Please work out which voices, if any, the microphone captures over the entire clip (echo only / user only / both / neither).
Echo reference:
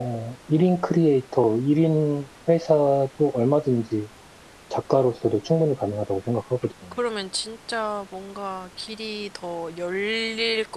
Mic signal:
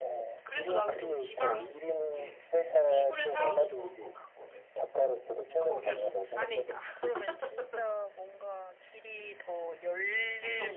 both